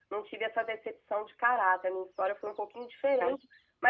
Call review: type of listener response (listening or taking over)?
listening